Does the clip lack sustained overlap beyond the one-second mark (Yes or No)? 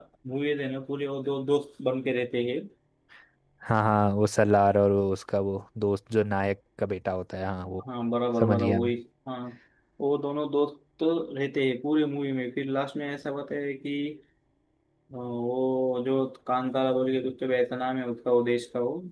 Yes